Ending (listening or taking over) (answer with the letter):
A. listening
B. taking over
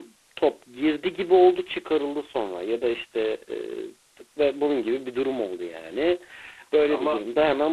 A